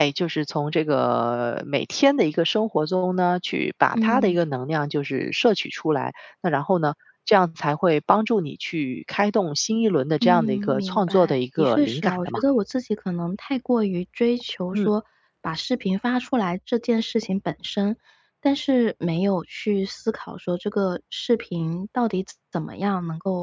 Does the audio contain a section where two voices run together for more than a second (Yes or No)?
Yes